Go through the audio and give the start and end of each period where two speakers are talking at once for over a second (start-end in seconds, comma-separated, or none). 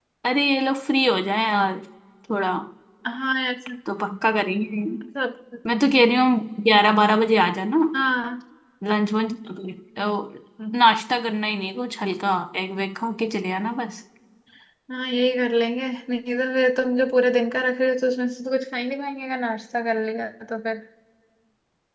none